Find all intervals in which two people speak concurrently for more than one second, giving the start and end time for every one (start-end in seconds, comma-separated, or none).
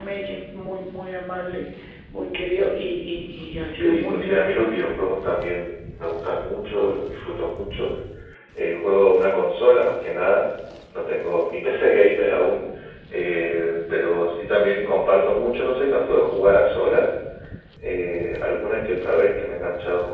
3.8-5.0